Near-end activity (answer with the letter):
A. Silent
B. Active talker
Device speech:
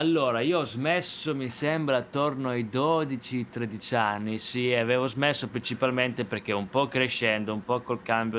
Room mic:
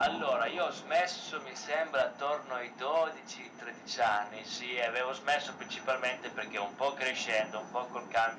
A